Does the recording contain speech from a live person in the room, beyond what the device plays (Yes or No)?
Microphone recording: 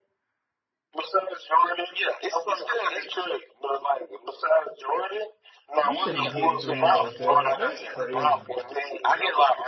Yes